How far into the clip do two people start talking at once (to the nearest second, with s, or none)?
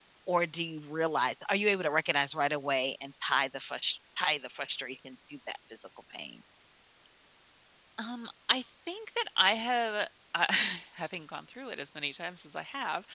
none